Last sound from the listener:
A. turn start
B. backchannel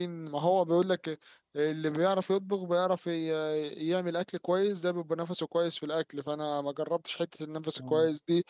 B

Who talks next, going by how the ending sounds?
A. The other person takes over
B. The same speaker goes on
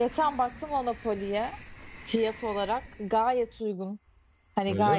B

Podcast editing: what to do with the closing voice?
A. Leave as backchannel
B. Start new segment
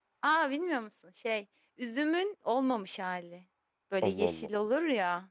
A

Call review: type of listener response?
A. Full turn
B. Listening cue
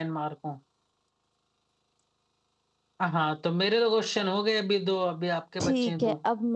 A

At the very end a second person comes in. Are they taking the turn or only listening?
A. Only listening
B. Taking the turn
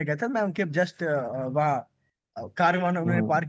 A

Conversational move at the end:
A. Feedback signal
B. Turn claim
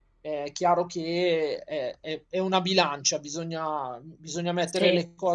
A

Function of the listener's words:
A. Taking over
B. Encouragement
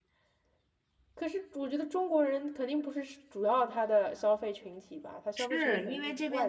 A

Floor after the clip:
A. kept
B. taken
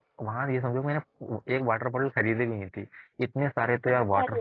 A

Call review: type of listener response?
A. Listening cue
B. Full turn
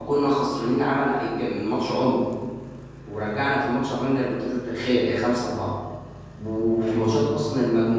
A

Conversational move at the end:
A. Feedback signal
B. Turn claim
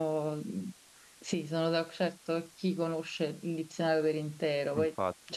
A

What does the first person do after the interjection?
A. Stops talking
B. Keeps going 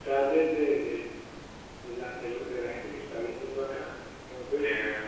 B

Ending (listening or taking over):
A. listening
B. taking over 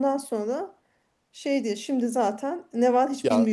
B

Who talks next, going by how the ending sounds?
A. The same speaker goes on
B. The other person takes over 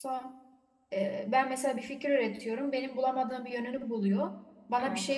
A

